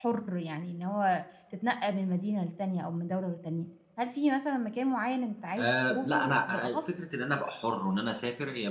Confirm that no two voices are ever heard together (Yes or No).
No